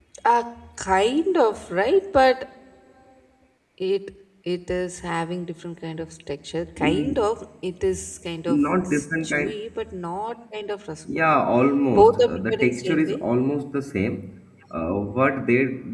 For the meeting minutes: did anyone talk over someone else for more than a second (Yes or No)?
Yes